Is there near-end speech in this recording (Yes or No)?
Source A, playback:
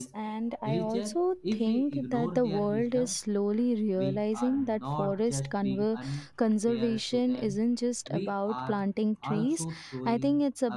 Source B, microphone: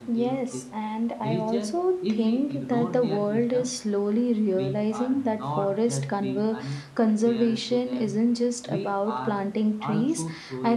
No